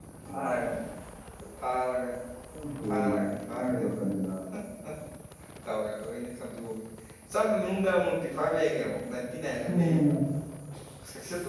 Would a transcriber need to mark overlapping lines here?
Yes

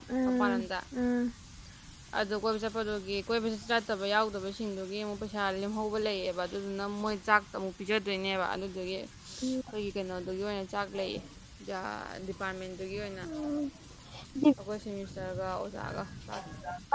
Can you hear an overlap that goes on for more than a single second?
No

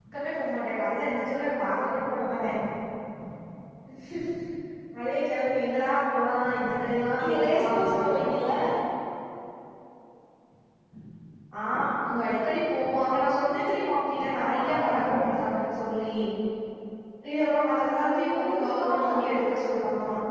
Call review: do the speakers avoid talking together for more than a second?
No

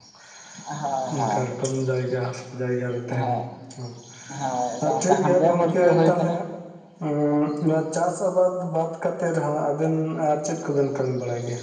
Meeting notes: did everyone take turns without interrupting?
No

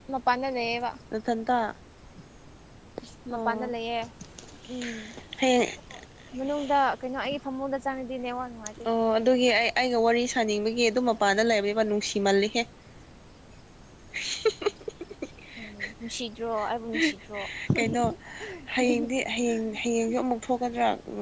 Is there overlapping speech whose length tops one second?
No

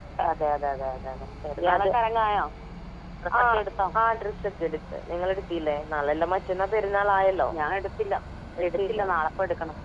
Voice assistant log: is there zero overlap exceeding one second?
Yes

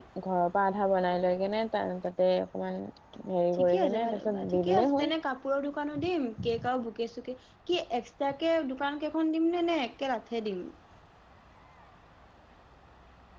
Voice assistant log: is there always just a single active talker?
No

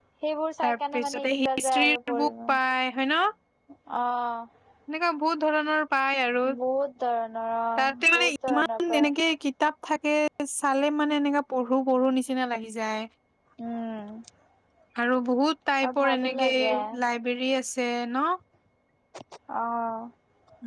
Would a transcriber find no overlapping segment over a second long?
No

